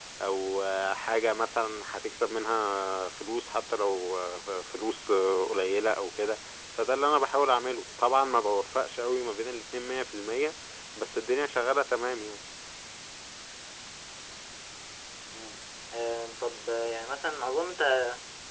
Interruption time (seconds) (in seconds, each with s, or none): none